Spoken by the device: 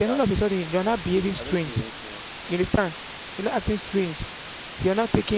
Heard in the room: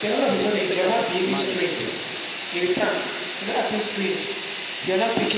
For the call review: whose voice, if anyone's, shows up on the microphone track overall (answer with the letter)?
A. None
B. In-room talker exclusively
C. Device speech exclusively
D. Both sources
D